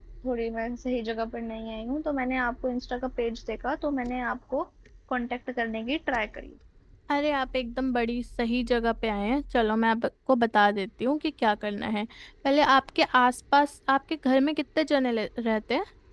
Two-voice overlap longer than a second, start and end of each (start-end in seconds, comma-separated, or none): none